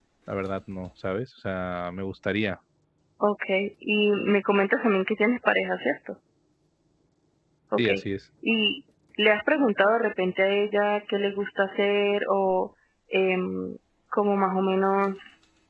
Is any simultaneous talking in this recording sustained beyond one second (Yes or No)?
No